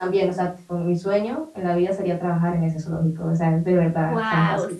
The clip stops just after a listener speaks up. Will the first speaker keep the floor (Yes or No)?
No